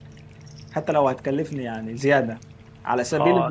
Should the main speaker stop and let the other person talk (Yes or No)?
Yes